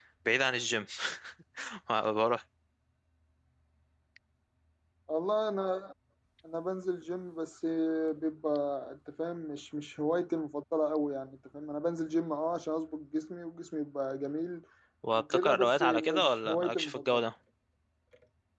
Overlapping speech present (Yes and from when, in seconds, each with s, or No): Yes, from 15.1 s